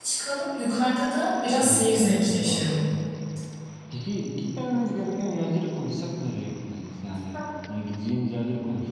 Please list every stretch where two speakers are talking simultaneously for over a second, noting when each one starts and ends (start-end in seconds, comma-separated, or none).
1.6-2.9